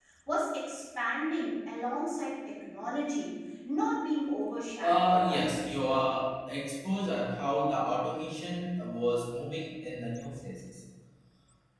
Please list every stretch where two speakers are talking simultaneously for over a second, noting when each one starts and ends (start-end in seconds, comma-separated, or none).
4.8-6.0